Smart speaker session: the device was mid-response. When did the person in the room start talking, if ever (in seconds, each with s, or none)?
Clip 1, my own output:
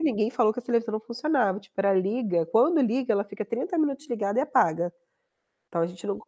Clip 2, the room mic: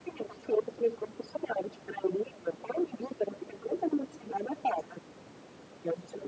none